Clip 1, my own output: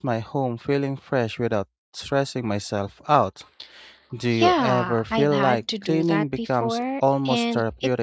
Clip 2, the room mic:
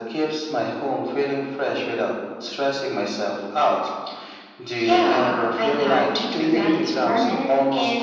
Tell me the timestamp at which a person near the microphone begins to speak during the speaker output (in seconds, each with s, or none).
6.2 s